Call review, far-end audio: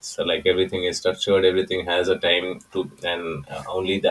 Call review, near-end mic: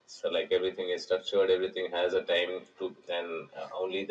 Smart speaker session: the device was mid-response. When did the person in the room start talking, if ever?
none

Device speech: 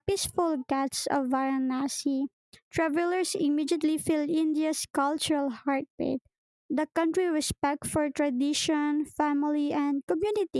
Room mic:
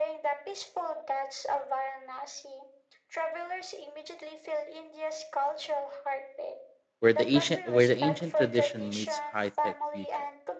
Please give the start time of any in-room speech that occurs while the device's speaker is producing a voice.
7.0 s

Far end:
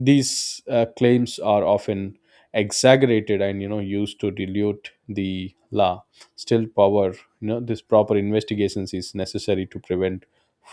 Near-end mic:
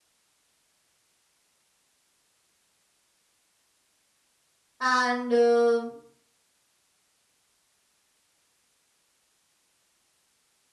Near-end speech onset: 4.8 s

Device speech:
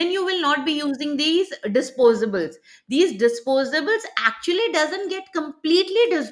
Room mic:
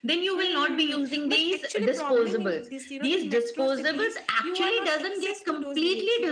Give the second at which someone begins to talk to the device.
0.3 s

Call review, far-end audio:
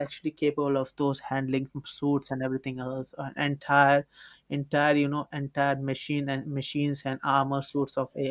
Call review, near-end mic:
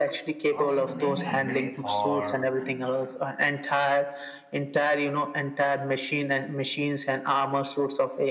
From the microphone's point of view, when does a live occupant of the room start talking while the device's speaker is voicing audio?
0.5 s

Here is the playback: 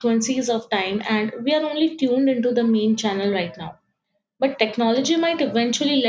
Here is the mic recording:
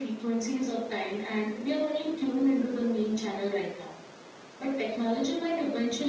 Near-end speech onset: none

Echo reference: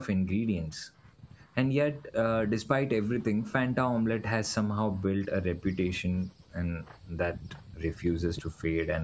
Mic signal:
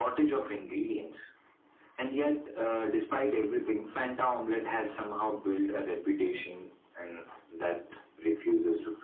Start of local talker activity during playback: none

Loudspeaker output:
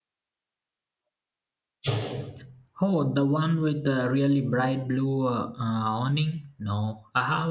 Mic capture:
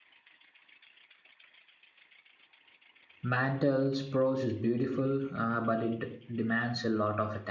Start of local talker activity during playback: 3.2 s

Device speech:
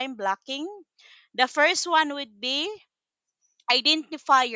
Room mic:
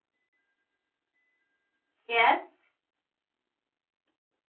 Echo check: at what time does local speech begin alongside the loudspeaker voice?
2.1 s

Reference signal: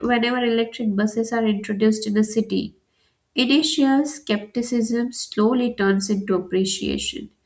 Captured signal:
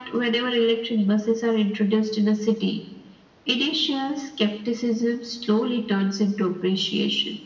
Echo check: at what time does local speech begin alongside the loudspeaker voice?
none

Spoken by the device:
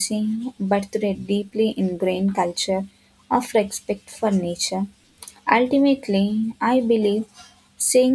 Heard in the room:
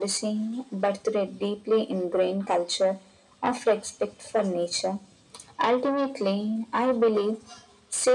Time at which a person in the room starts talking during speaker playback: none

